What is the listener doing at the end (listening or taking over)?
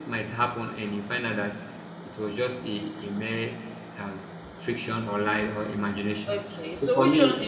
taking over